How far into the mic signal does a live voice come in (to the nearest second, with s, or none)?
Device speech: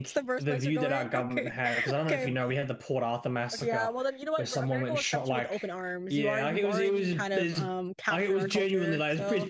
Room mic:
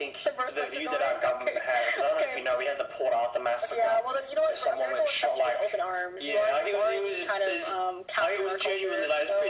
none